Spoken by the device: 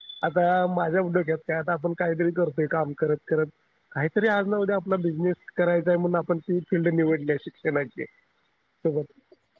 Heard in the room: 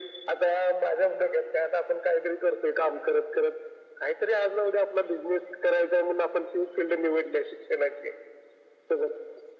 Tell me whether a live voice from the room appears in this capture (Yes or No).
No